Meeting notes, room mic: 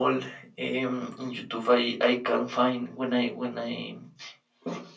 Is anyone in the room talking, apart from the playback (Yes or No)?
No